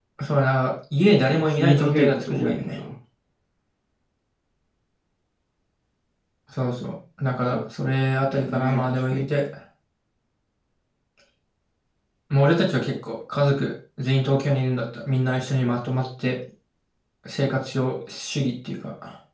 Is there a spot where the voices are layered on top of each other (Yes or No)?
Yes